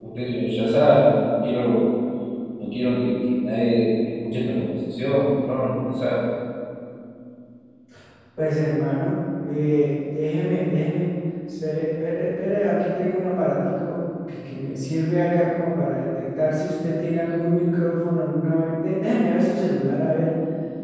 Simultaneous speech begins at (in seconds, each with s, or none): none